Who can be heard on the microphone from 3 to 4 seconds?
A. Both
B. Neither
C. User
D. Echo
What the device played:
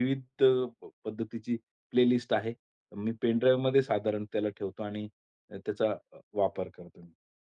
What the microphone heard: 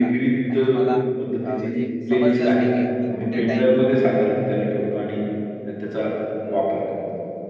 A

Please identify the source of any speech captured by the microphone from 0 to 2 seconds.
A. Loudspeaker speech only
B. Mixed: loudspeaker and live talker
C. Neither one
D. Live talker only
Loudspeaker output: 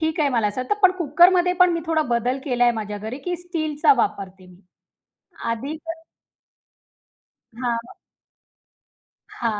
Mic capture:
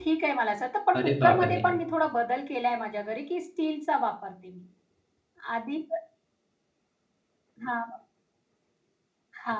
B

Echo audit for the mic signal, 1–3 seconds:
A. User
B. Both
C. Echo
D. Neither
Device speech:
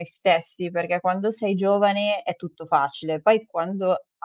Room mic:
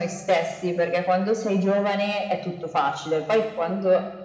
C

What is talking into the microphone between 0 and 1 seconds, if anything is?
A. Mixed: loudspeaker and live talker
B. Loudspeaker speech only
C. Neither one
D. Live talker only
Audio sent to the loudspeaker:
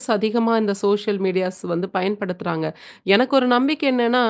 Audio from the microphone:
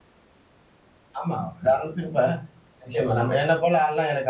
C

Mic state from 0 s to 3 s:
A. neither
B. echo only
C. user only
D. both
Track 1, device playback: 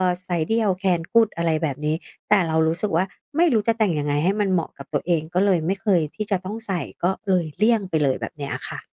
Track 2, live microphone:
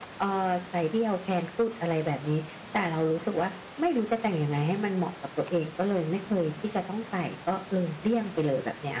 B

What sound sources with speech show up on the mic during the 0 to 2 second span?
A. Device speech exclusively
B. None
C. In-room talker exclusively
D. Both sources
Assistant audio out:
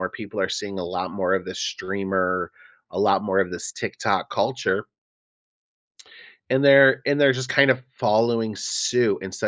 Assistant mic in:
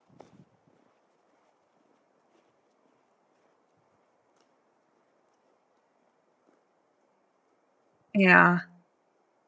B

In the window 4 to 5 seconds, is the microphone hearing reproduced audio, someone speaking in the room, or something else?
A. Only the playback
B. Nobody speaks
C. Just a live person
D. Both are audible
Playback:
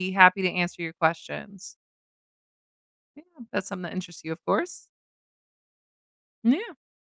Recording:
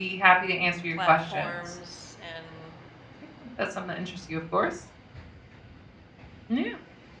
A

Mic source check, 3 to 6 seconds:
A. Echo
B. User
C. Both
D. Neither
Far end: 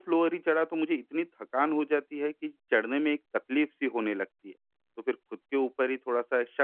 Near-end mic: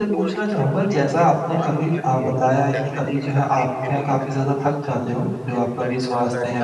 C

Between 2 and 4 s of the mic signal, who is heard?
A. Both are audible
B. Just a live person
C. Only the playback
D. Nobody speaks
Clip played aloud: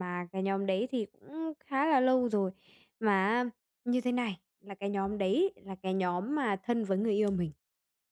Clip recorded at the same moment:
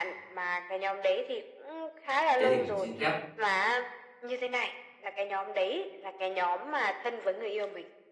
A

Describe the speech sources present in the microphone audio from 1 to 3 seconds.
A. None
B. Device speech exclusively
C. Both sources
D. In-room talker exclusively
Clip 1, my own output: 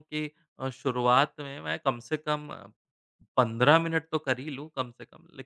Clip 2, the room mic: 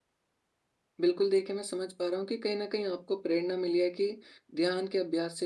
D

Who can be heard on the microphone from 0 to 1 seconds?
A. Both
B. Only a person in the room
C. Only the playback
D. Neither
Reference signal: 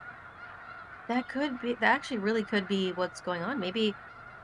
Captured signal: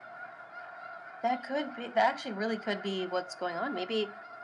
D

